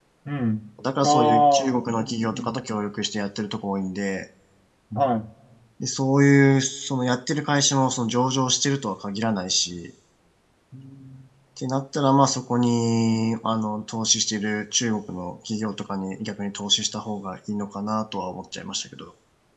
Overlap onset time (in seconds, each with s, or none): 1.0 s